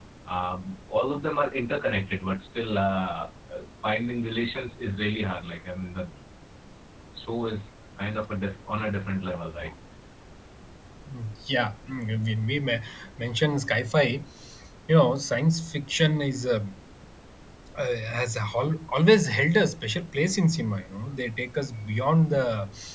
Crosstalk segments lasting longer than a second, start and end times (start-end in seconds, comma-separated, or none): none